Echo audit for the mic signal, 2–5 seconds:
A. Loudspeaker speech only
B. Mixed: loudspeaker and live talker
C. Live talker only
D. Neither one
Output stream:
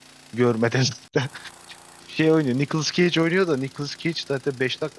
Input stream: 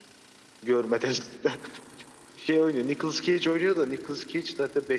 A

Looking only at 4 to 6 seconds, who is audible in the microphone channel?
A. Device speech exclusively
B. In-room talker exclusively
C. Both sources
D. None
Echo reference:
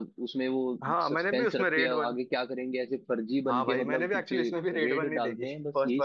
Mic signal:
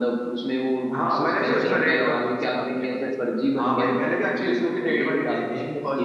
A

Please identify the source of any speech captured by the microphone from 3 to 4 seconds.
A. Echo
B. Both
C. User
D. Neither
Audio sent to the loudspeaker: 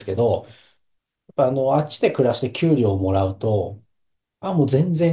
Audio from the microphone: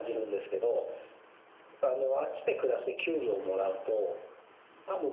A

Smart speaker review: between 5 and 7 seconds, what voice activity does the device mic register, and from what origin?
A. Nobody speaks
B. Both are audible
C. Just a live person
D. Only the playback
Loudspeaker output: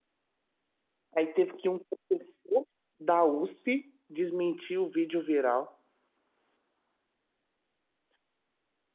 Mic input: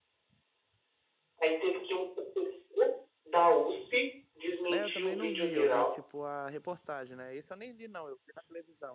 B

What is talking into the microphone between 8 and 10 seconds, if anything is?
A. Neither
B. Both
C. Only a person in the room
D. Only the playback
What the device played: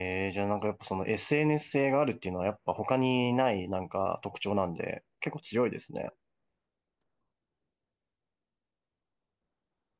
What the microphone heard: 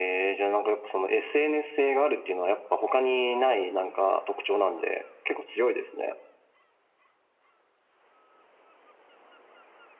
A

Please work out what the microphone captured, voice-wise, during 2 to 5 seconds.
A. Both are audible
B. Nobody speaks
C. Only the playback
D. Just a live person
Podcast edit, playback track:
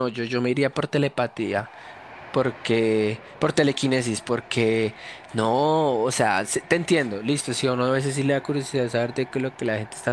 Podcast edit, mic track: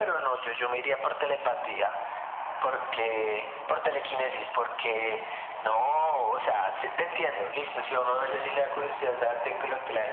C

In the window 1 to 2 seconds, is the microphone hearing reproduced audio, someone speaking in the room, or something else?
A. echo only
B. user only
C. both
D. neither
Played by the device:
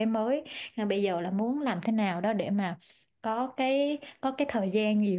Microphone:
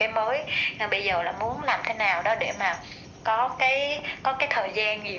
A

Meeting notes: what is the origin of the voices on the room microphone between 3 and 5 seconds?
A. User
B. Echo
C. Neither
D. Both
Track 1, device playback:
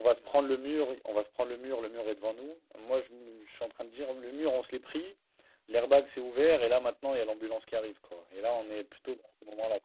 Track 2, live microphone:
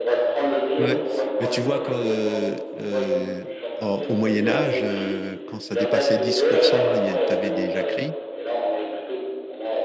D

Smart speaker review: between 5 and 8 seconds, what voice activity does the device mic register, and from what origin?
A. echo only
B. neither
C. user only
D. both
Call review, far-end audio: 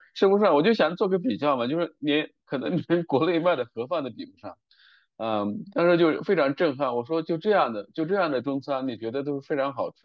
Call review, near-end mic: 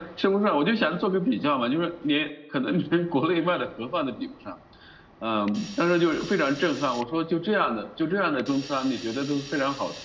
A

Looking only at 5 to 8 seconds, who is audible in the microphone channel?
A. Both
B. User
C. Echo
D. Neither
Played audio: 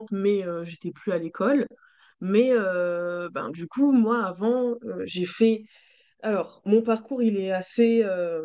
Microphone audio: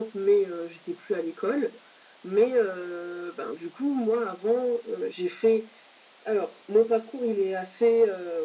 C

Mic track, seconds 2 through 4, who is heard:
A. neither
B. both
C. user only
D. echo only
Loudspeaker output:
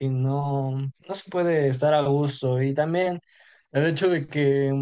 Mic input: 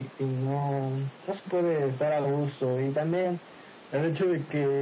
D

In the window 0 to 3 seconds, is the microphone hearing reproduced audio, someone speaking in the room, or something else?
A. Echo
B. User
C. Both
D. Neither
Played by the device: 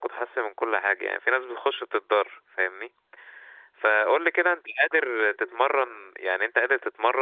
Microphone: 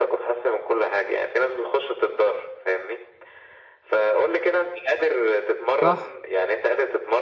A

